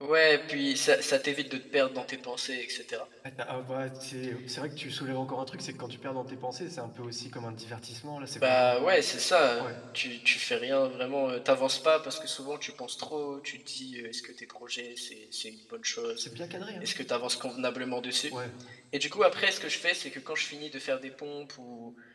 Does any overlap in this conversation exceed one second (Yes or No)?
No